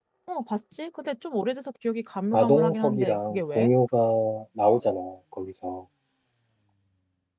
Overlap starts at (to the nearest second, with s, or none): 2 s